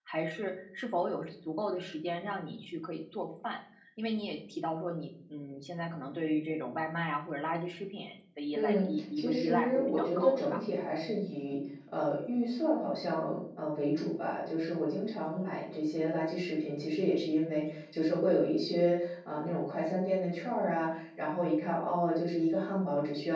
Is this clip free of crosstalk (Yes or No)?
No